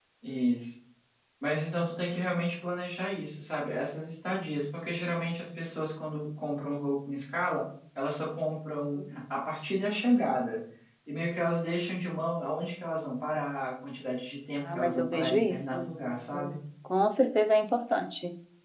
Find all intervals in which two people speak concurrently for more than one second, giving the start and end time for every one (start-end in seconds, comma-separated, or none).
14.6-16.6